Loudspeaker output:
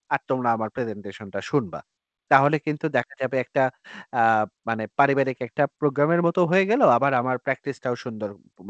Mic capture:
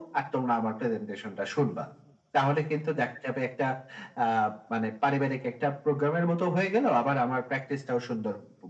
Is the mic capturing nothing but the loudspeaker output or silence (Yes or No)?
Yes